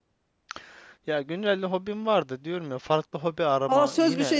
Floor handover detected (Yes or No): Yes